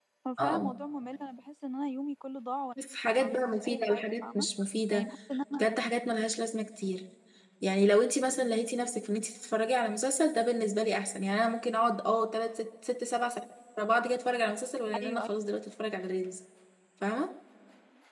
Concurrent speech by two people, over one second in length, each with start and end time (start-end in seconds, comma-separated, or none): 3.2-4.5